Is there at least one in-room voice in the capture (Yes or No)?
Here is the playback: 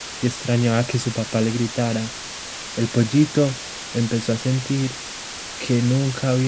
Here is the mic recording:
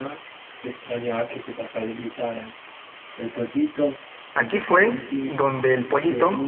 Yes